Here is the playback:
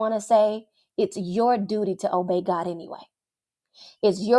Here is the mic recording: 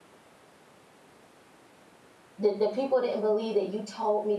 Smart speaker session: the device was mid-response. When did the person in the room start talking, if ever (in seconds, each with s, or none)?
2.4 s